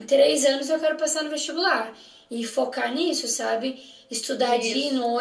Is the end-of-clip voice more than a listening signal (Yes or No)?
No